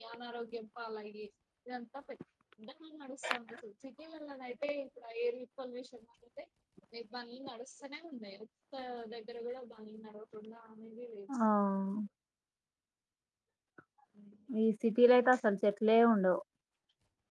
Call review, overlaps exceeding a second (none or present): none